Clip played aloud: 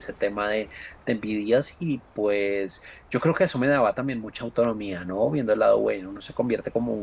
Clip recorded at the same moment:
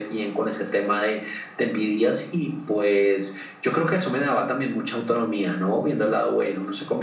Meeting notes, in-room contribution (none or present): none